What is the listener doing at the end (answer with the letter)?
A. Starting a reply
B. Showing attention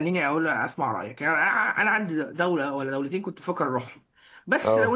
B